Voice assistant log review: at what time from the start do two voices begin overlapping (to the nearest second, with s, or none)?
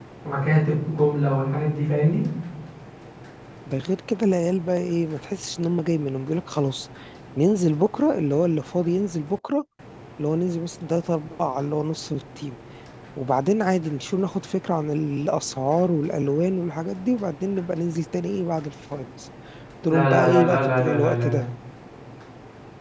20 s